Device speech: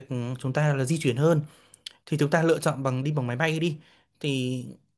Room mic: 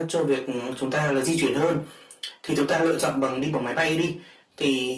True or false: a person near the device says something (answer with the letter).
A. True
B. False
B